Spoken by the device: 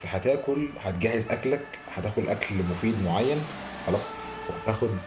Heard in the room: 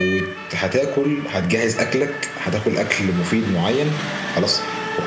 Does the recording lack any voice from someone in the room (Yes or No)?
Yes